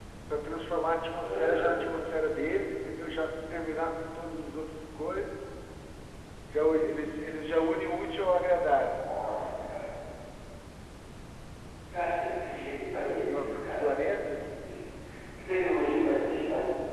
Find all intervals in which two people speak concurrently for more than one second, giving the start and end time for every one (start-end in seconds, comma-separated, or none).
12.6-13.9